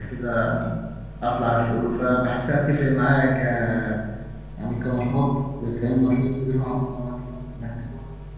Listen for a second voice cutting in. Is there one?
No

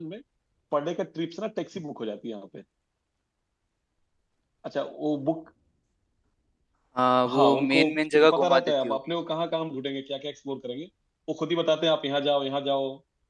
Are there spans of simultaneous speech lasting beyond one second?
Yes, from 7.3 s

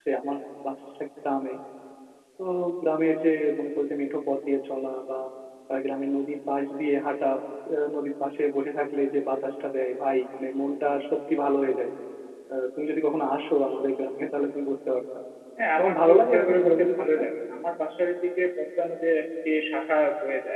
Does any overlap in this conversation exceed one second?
Yes, from 15.8 s

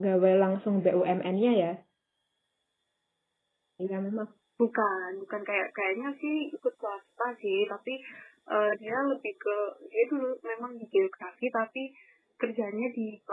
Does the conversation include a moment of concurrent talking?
No

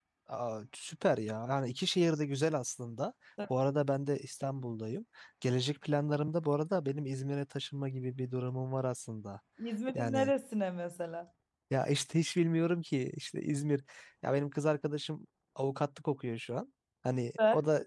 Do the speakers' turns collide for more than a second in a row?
No

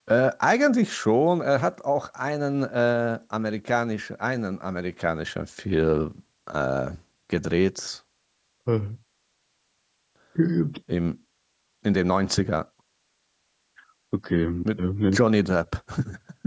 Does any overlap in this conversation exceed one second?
No

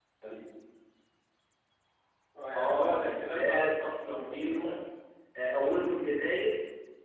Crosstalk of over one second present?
Yes, from 2.5 s

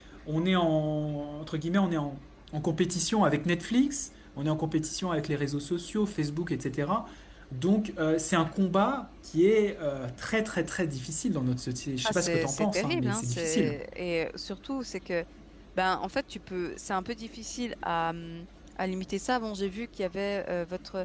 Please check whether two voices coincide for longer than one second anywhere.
Yes, from 12.0 s

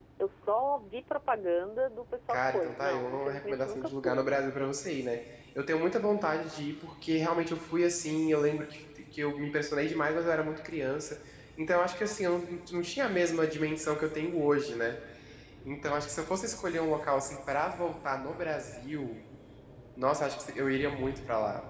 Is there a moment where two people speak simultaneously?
Yes, from 2.3 s

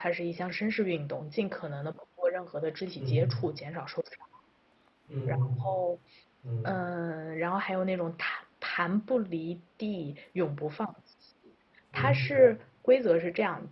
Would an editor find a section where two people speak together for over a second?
No

